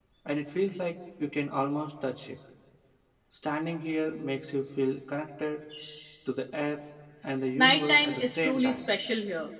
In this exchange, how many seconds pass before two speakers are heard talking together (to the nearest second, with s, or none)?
8 s